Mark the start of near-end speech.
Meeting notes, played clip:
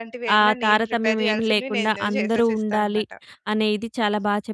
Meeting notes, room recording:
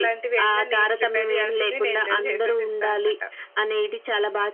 none

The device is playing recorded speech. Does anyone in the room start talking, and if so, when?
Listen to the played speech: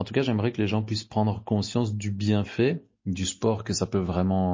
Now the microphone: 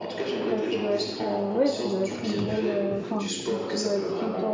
0 s

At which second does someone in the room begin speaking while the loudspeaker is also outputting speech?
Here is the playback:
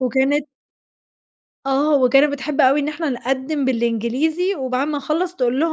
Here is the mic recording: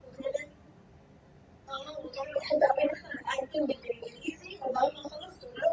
none

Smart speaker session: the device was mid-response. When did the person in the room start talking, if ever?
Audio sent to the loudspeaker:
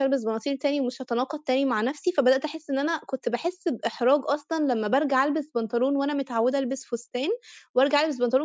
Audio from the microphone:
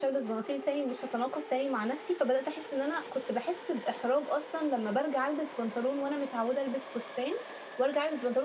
none

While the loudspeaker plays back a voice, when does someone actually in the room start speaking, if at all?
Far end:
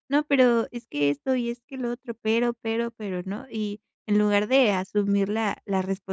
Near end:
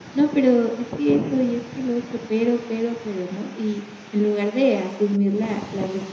none

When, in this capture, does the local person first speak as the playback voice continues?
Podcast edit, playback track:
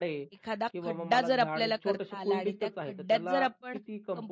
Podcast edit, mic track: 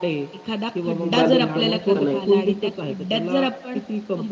1 s

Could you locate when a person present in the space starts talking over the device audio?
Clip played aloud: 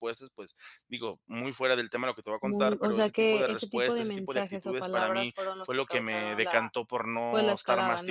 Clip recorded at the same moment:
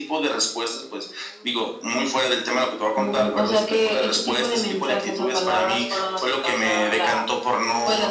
none

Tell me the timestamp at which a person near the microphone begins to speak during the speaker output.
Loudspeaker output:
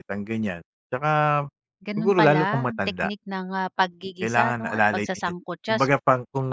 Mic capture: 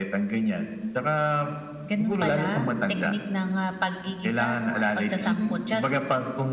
5 s

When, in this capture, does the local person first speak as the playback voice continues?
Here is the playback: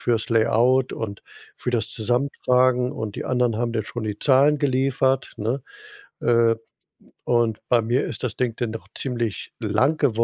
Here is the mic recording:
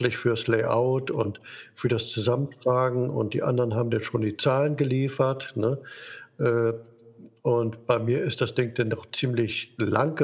none

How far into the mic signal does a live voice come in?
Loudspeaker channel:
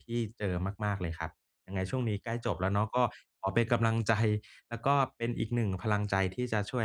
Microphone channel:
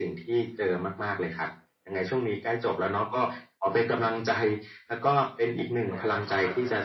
6 s

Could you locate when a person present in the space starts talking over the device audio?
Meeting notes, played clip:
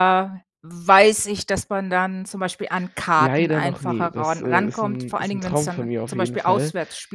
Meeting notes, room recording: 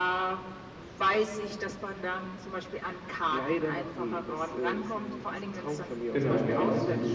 6 s

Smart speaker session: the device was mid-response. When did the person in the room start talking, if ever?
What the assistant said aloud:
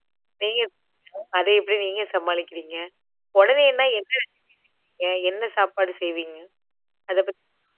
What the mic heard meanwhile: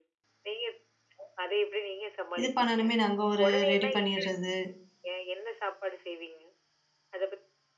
2 s

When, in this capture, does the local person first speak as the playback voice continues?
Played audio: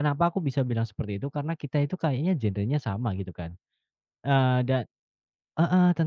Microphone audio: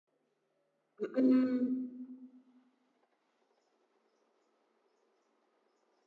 1 s

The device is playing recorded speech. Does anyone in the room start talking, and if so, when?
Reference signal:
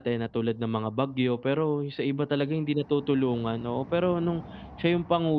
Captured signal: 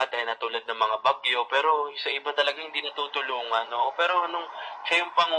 none

